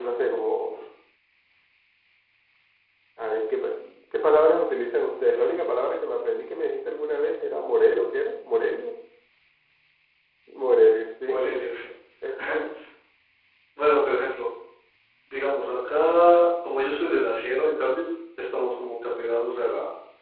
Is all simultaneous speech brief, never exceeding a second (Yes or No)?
Yes